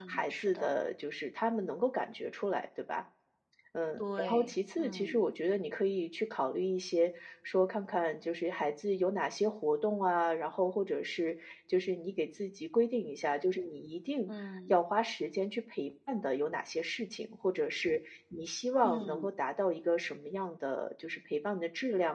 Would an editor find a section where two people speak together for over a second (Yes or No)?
Yes